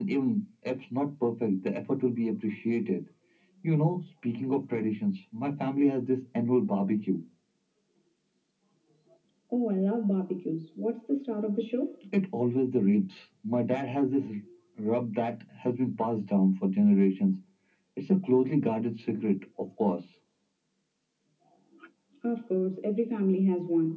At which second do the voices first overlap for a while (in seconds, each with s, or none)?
none